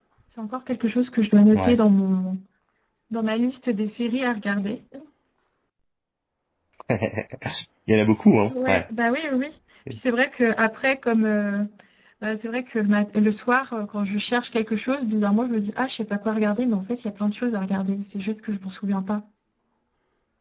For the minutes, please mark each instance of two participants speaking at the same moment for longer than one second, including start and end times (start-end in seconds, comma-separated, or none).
none